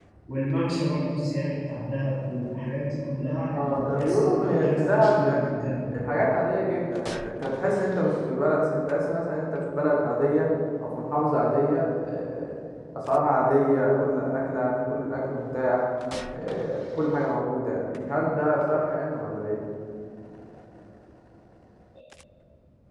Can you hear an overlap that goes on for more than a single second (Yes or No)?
Yes